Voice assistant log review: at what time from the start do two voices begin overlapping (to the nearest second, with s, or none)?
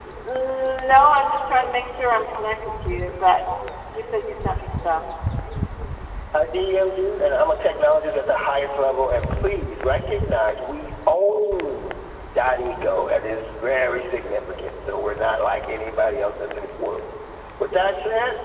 none